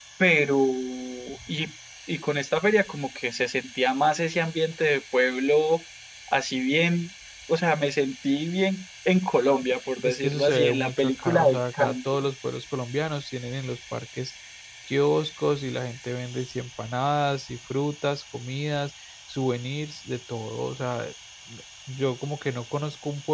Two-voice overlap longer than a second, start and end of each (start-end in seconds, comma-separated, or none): 10.0-12.2